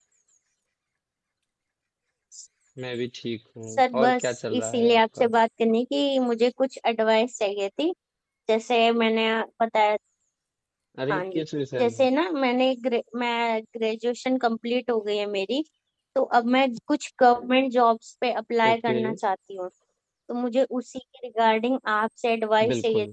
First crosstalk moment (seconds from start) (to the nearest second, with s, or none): 4 s